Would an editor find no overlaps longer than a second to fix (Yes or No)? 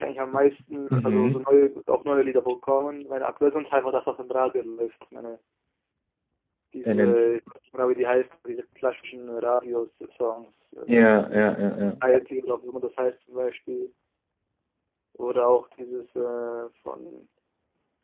Yes